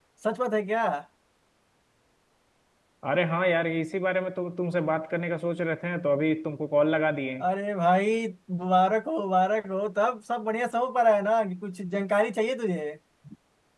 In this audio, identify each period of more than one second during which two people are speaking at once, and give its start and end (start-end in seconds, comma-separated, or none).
none